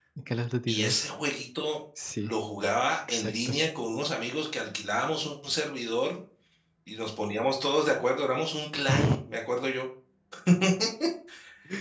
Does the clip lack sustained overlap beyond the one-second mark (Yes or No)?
Yes